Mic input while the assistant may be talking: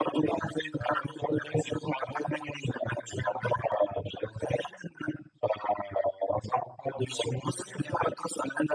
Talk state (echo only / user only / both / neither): echo only